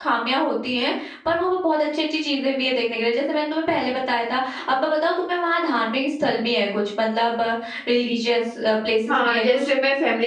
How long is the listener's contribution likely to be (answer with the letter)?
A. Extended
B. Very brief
A